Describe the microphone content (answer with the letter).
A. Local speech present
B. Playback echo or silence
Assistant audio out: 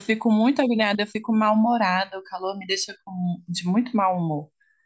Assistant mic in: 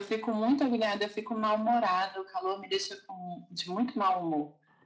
B